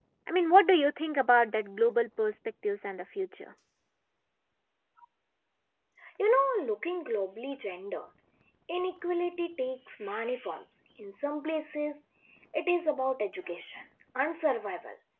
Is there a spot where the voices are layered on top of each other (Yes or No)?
No